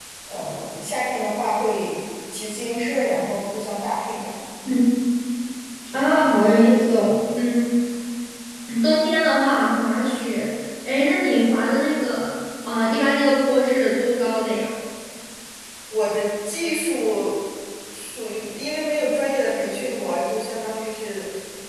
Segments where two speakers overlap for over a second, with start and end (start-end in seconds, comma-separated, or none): none